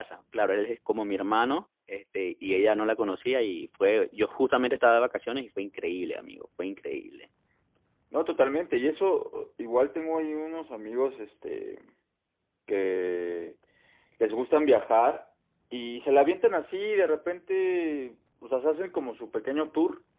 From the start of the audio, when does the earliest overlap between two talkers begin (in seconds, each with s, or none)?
none